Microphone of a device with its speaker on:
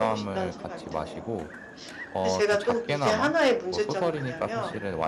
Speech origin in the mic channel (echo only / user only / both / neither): both